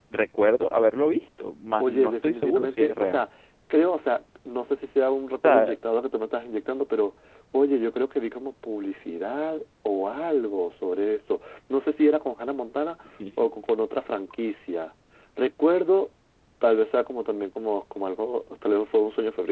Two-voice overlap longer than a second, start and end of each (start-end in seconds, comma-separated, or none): 1.8-3.3